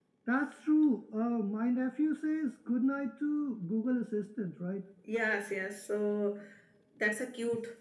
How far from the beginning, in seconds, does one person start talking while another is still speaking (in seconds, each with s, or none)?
none